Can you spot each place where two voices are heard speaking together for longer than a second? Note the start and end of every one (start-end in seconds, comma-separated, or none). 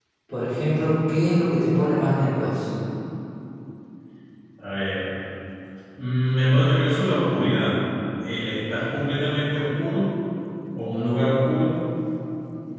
none